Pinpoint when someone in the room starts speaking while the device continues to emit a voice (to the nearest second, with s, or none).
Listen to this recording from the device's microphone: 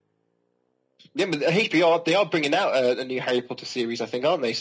none